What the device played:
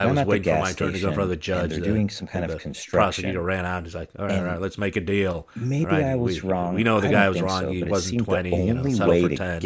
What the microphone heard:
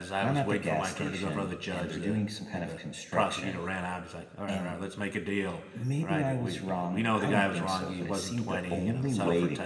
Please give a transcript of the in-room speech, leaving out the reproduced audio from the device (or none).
none